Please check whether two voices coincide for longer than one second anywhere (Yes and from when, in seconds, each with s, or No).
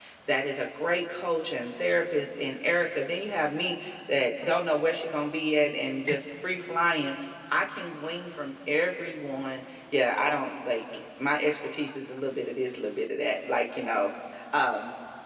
No